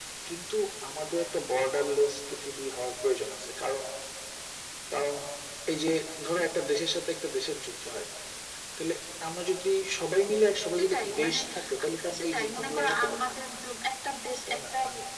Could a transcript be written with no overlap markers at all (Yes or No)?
No